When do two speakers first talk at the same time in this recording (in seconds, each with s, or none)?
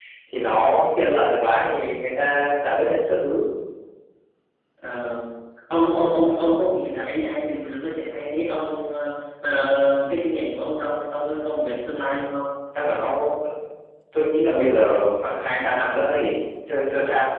none